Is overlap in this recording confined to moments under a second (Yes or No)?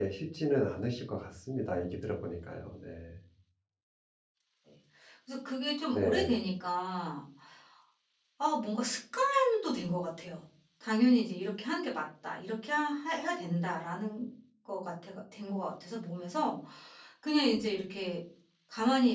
Yes